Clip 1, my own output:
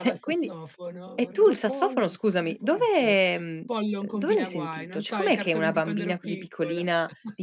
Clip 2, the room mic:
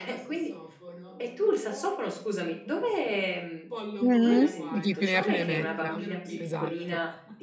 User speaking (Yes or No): Yes